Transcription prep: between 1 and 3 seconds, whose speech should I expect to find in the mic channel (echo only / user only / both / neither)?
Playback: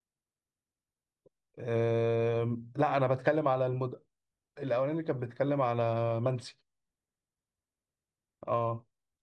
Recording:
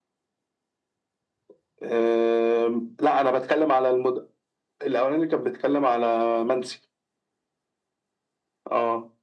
echo only